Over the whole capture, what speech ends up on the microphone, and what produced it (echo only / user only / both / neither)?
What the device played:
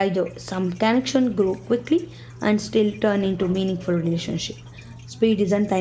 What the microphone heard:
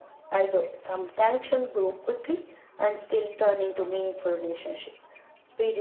echo only